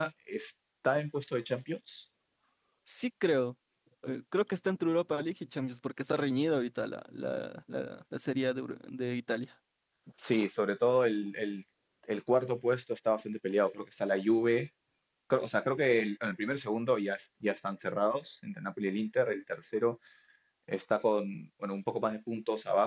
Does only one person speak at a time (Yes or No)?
Yes